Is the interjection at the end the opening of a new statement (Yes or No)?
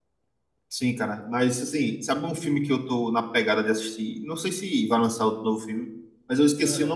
No